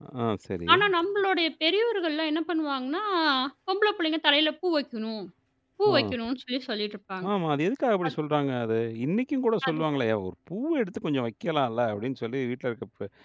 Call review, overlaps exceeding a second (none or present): none